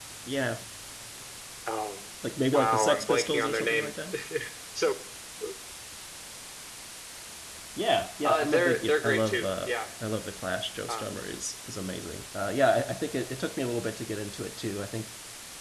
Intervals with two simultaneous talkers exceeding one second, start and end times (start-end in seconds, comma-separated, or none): 2.5-3.9, 8.2-9.7